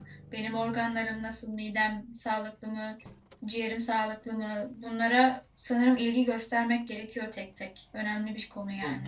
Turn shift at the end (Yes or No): Yes